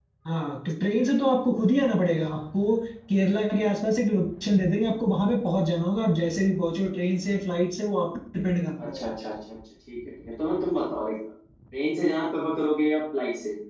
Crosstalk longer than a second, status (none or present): none